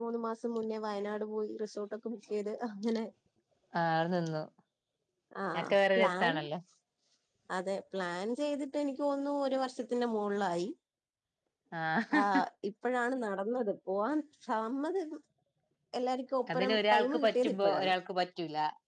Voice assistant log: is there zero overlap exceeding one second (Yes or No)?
No